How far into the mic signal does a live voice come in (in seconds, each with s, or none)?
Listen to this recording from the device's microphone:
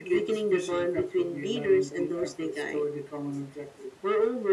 none